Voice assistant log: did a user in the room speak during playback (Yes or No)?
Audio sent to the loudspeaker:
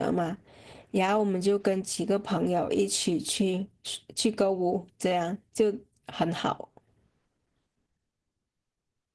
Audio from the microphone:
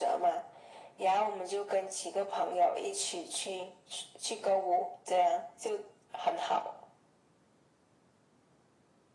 No